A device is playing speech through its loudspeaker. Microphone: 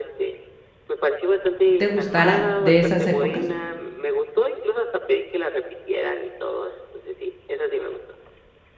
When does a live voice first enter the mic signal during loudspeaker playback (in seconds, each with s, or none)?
1.6 s